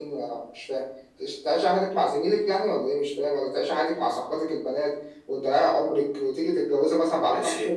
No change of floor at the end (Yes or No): No